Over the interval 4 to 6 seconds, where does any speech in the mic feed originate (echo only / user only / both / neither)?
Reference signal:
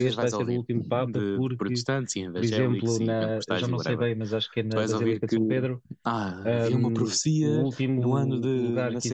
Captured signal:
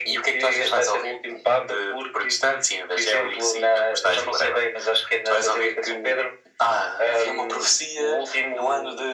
echo only